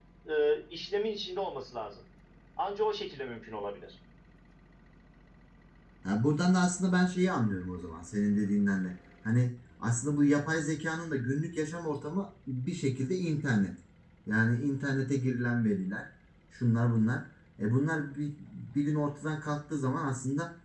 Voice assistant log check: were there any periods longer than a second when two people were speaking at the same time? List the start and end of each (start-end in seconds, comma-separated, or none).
none